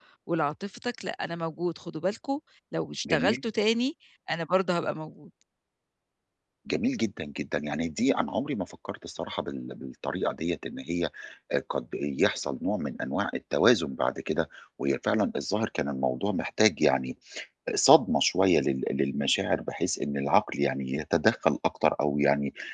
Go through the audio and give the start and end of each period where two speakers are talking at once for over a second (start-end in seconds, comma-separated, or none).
none